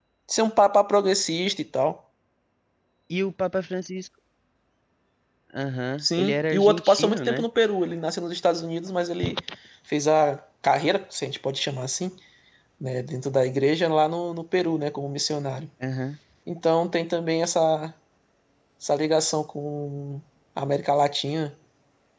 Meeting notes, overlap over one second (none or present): present